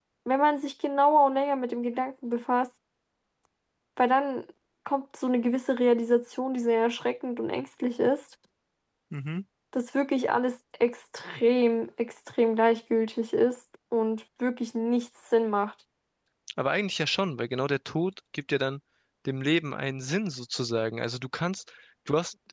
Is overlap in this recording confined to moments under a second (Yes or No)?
Yes